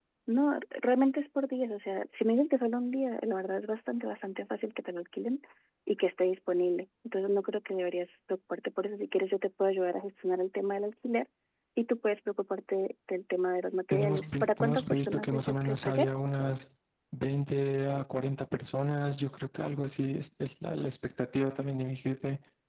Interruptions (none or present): present